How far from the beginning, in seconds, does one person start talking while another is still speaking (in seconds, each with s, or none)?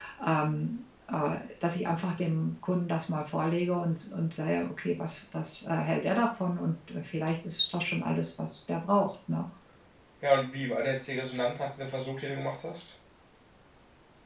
none